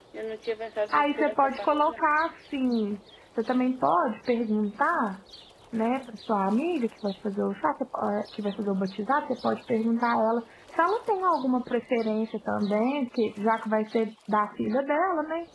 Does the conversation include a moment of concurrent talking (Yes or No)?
Yes